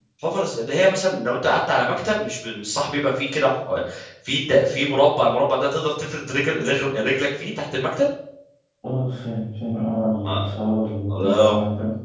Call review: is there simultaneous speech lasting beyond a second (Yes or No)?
No